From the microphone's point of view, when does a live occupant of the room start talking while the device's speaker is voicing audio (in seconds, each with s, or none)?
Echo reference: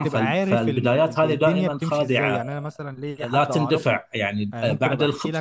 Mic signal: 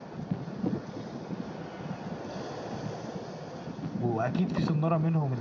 4.0 s